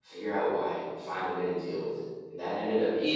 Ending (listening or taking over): listening